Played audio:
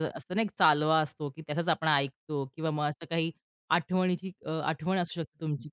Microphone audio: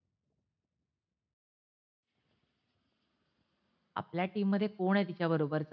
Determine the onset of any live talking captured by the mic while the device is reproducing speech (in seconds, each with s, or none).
4.0 s